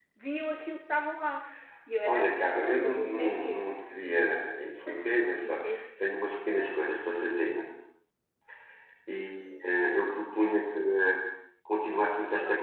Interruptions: present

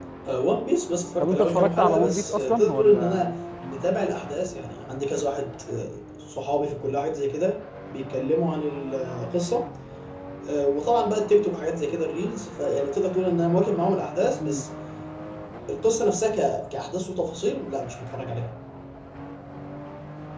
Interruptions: present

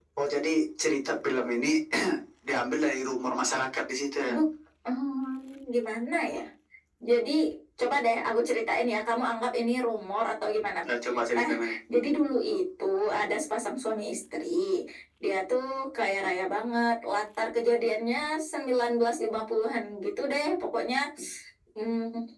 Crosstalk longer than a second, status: none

